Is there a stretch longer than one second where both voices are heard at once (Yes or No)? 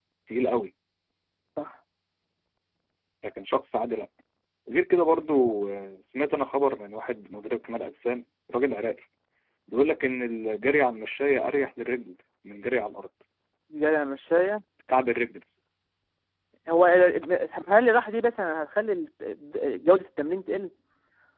No